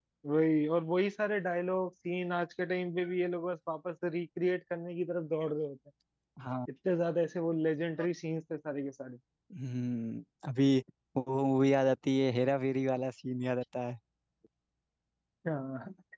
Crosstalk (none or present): none